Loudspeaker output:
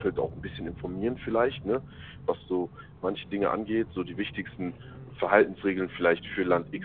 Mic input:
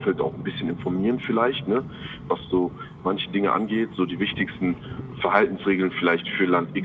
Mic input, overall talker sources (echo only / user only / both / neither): echo only